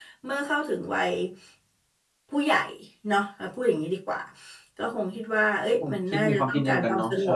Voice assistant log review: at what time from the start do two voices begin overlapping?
5.8 s

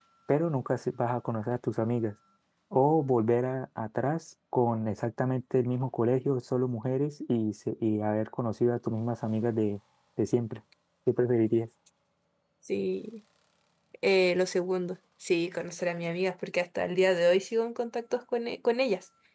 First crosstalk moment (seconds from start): none

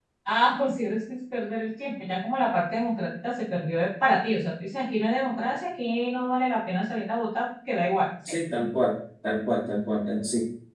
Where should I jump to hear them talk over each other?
none

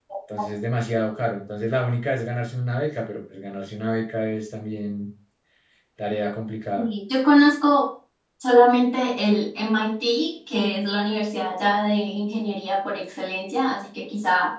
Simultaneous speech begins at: none

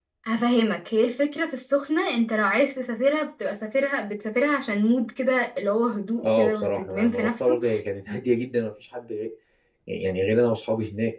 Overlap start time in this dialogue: 6.2 s

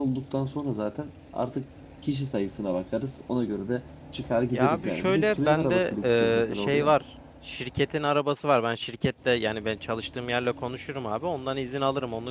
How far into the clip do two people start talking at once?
4.5 s

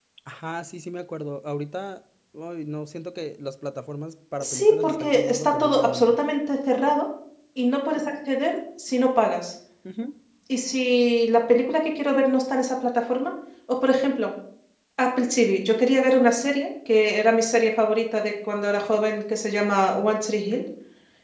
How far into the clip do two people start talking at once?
4.4 s

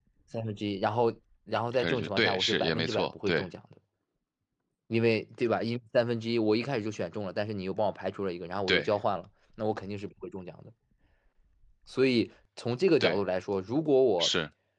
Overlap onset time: 1.7 s

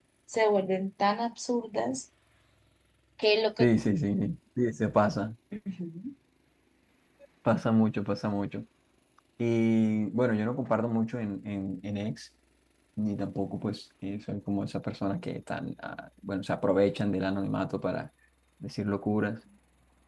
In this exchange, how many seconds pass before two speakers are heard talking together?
none

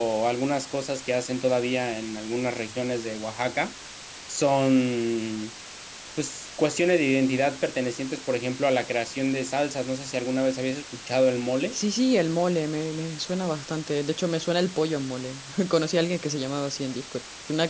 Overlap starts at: none

